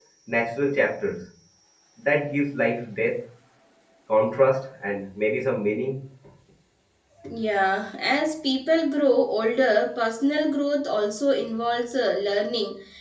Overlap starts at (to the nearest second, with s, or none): none